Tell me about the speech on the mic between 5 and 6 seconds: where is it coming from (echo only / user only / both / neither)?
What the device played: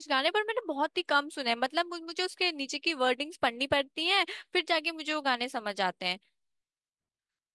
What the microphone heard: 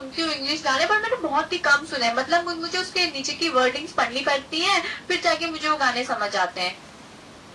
echo only